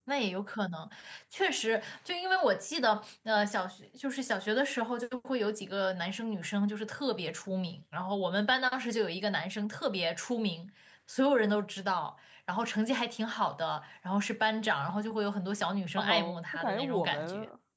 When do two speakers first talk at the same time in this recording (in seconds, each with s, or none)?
16.0 s